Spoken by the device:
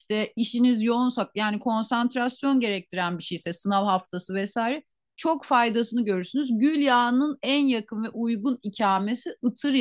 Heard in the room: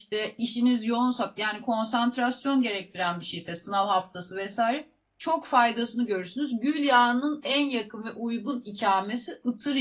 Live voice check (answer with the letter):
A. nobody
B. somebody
A